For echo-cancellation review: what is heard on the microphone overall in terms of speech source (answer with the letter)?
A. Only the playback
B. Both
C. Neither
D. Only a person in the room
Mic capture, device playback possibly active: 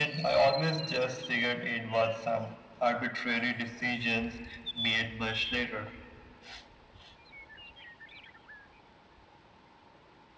A